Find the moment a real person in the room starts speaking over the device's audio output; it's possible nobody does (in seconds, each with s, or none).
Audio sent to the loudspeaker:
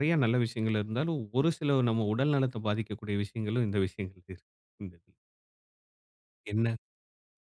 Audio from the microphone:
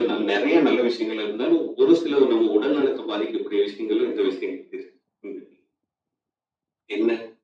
none